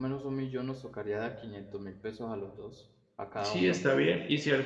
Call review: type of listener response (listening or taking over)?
taking over